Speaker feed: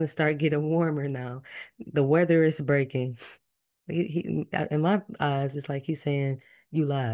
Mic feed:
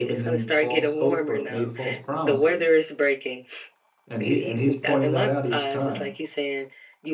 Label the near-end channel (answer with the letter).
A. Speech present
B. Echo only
A